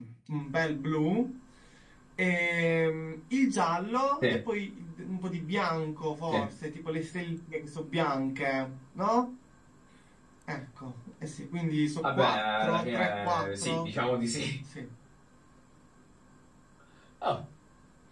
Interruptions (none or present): present